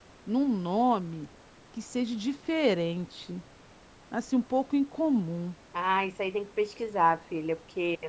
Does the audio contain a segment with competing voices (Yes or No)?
No